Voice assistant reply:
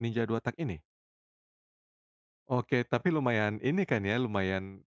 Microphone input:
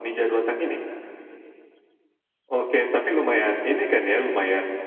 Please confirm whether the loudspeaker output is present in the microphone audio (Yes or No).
Yes